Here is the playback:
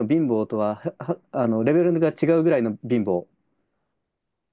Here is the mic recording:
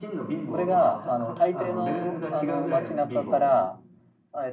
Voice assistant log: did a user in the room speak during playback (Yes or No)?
Yes